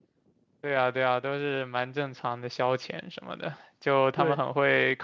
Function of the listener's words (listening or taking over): listening